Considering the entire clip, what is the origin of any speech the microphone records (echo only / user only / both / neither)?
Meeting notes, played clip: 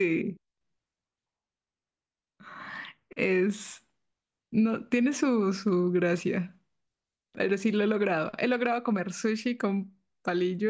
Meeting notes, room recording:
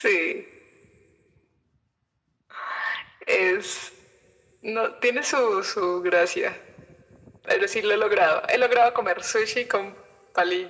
echo only